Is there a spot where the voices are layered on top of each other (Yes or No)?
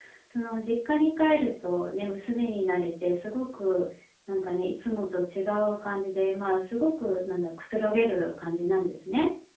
No